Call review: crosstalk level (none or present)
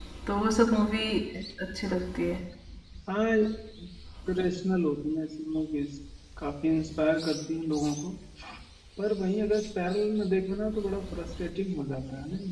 none